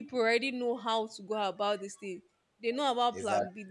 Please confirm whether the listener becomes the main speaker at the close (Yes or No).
No